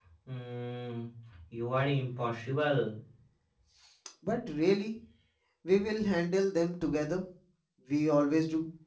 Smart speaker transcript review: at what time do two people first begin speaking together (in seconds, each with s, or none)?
none